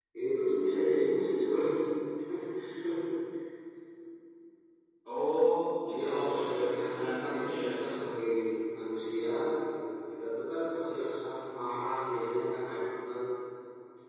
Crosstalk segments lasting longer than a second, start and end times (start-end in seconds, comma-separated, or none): 5.9-7.6